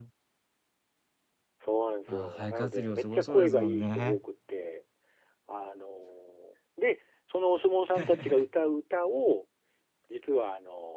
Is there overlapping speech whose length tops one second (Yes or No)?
Yes